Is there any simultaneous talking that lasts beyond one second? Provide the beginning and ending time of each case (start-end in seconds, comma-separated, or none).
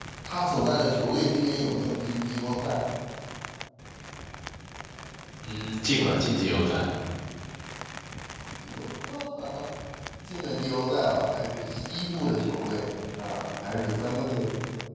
none